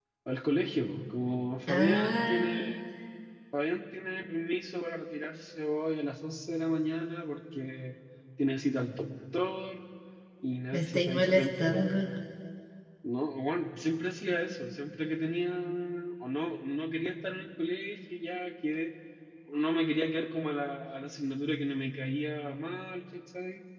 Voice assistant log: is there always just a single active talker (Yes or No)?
No